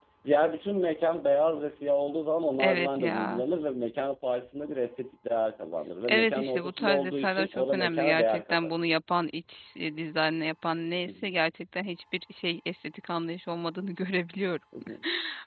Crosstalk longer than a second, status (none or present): present